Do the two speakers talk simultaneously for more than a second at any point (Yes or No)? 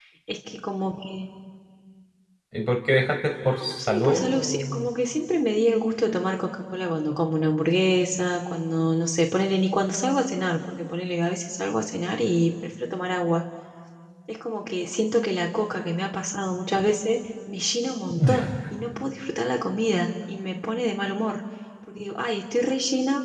Yes